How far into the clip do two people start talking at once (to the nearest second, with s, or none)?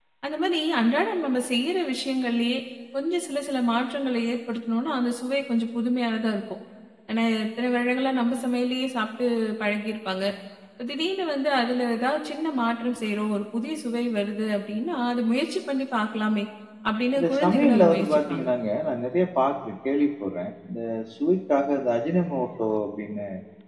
17 s